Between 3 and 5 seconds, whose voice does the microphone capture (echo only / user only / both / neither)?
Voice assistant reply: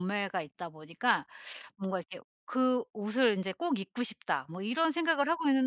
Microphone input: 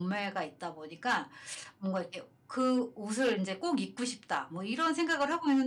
echo only